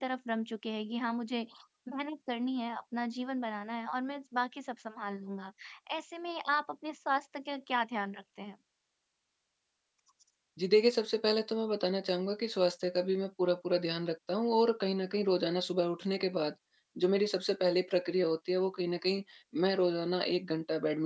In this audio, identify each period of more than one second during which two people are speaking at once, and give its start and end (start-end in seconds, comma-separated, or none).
none